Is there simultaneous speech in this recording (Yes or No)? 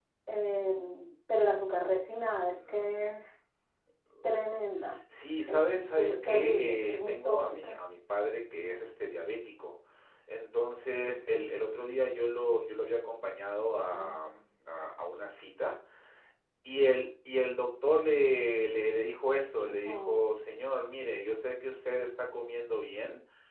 Yes